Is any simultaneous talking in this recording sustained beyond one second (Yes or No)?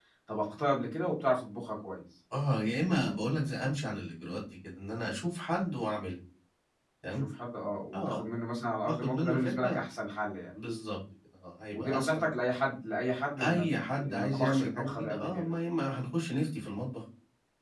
Yes